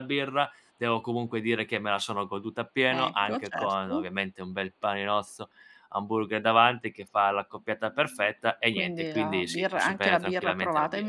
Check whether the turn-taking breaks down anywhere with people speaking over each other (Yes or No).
Yes